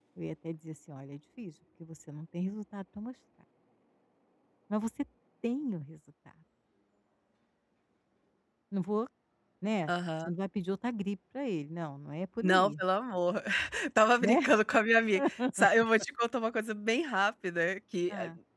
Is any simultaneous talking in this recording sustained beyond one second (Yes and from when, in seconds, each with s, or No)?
No